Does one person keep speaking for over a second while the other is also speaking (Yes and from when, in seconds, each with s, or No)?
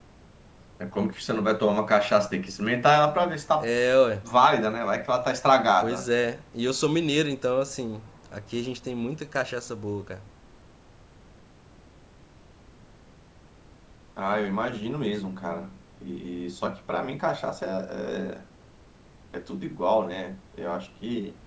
No